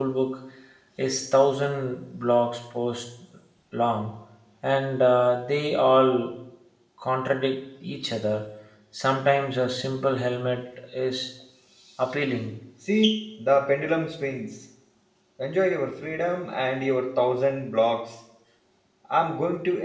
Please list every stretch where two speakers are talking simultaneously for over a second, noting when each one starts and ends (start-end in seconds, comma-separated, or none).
none